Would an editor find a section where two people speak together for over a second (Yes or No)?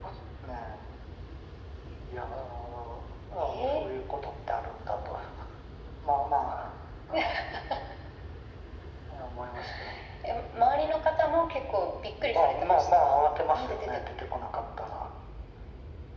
Yes